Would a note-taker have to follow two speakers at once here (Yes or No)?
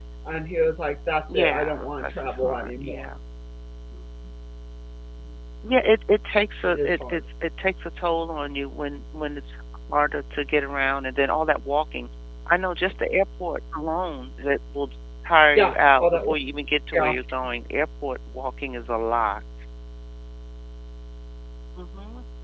Yes